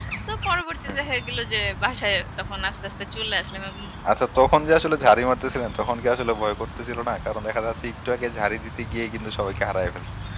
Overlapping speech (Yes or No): No